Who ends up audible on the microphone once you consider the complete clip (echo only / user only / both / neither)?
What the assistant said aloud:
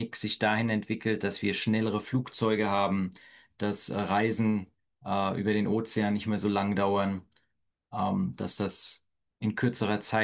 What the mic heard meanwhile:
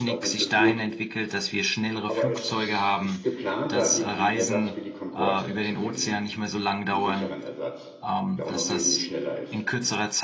both